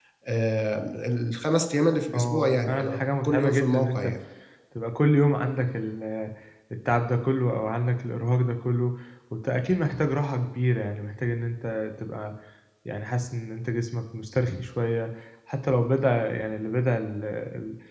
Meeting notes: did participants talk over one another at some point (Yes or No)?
Yes